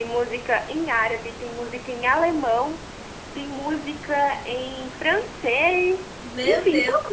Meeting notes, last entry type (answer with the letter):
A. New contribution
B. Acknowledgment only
B